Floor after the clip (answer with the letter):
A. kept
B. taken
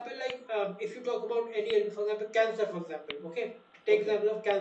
A